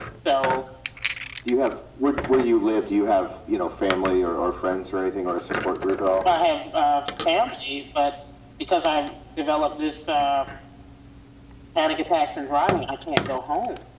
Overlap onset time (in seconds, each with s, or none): none